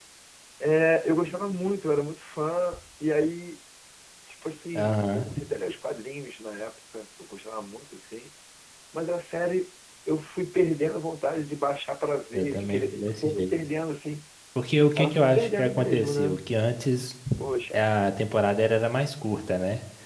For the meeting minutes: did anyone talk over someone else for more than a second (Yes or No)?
Yes